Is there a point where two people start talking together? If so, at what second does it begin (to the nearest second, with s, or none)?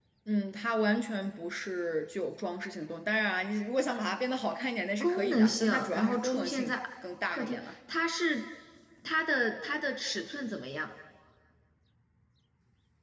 5 s